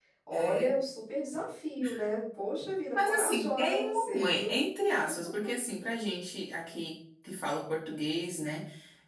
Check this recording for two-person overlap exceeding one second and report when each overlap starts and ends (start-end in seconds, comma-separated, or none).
2.9-4.6